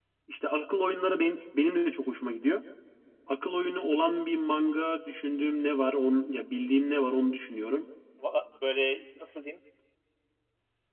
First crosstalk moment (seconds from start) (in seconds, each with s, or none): none